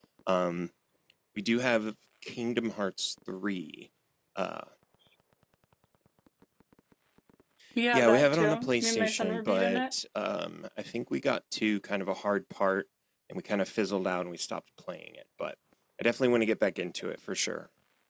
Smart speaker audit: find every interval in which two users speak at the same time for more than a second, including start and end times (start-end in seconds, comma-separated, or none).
7.9-9.8